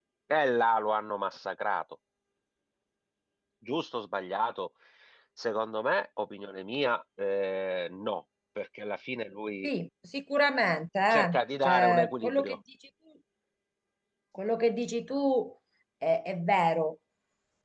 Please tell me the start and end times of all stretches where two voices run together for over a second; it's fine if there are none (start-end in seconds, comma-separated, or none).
11.1-12.6